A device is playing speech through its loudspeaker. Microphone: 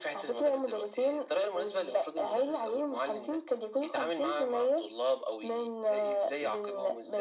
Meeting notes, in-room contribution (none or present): none